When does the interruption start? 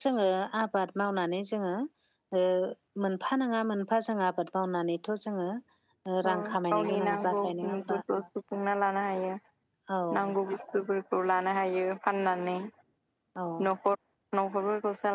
6.3 s

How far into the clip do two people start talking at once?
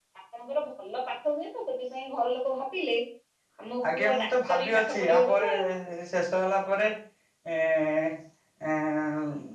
3.9 s

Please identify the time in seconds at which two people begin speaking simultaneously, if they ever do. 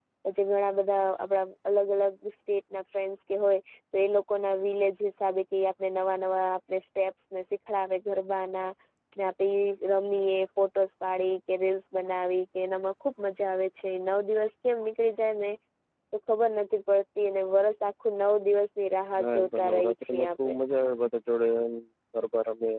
19.1 s

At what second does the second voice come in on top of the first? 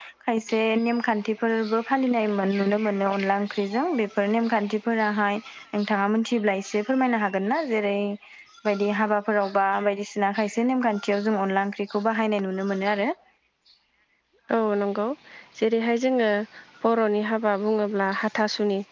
none

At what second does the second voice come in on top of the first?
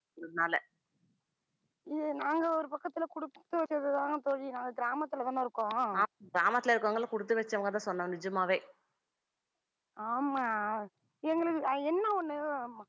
none

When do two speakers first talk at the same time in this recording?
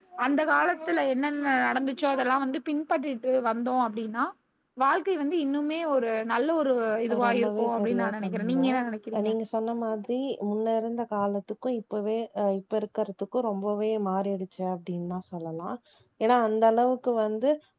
7.1 s

